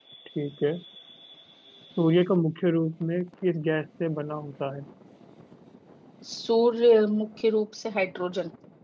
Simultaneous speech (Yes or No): No